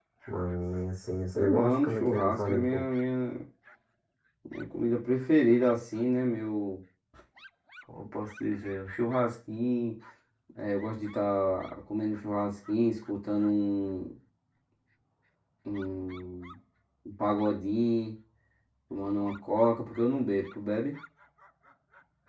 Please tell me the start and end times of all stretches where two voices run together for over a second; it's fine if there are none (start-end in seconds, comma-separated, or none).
1.4-2.8